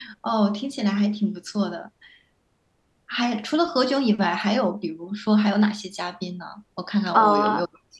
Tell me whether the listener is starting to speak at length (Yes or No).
Yes